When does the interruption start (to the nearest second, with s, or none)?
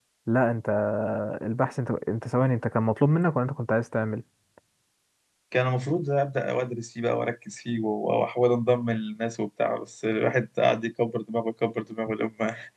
none